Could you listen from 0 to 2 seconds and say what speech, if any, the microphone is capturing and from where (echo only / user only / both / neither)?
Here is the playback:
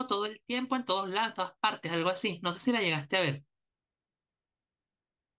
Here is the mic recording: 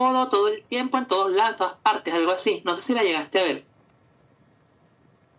echo only